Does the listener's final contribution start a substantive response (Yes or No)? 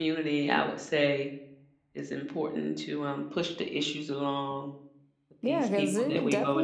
Yes